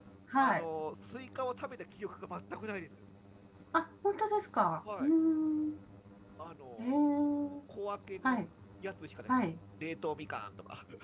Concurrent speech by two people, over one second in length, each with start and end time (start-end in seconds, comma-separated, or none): none